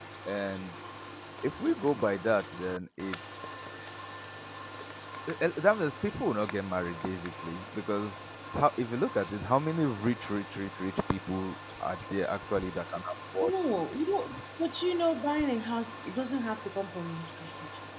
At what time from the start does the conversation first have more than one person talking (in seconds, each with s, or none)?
none